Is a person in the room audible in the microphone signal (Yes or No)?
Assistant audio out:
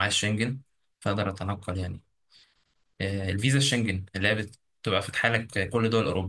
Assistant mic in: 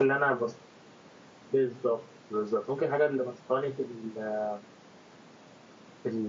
Yes